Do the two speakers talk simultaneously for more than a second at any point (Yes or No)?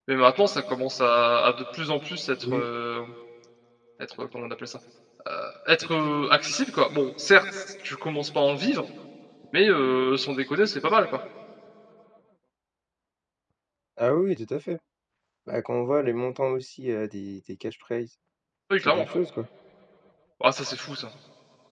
No